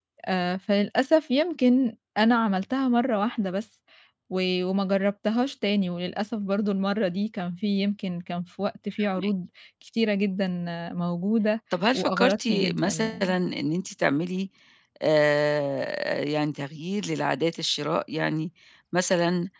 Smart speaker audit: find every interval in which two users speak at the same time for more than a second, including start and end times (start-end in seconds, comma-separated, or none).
11.9-13.3